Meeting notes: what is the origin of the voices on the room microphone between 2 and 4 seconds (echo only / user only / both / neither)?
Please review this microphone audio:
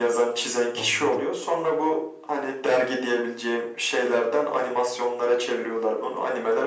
echo only